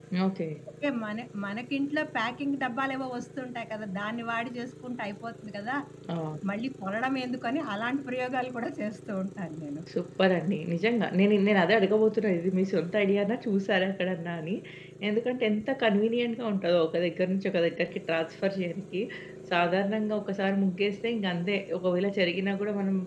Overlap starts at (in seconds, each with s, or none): none